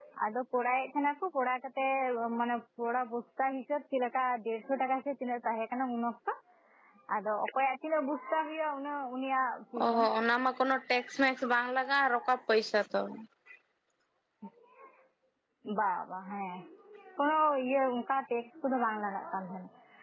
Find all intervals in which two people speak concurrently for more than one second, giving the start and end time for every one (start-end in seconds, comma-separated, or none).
none